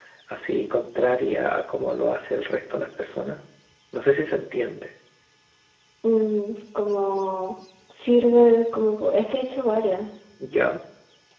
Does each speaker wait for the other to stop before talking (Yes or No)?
Yes